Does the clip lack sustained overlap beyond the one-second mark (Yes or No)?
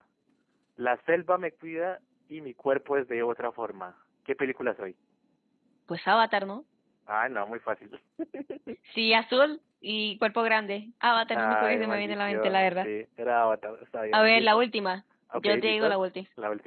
No